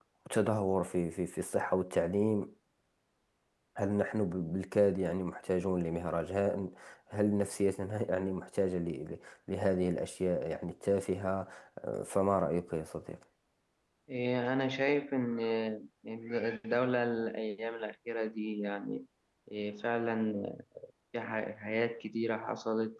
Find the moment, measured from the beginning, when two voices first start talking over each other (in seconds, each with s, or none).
none